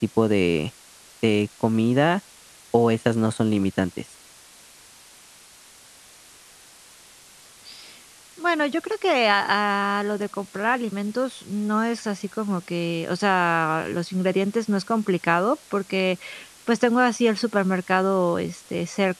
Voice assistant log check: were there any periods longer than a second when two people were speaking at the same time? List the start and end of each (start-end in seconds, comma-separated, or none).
none